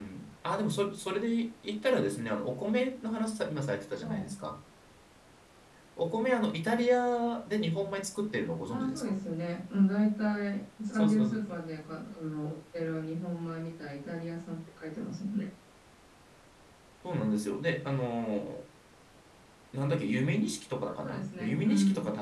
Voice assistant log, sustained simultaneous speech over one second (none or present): present